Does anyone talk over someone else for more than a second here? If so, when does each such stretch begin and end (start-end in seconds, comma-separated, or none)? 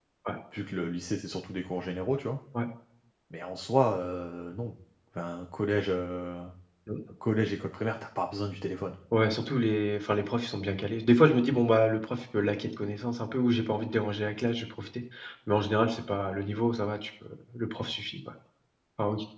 none